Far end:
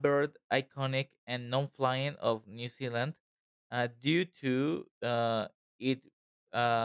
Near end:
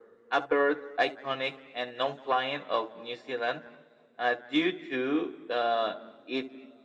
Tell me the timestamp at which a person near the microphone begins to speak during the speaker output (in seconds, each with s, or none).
none